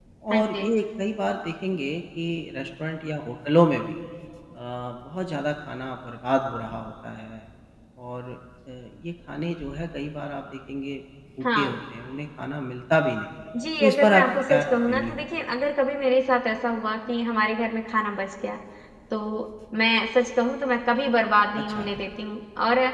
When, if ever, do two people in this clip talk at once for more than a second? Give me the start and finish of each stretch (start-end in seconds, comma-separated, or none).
13.8-15.2